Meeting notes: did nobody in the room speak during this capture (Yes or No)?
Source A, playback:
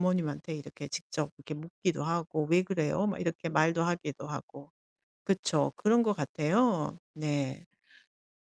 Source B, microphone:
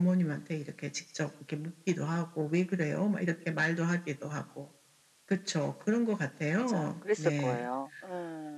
No